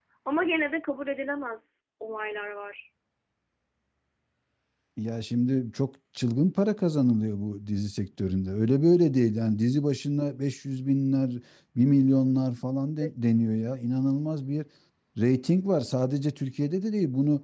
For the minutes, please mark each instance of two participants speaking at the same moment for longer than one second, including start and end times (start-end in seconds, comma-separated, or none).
none